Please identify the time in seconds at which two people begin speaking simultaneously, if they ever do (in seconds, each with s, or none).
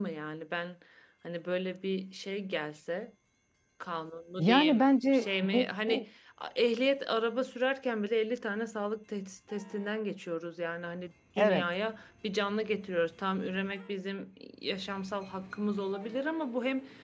4.4 s